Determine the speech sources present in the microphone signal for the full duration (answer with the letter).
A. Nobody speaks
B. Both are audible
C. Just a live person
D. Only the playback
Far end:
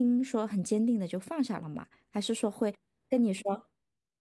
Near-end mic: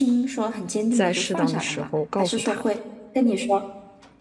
B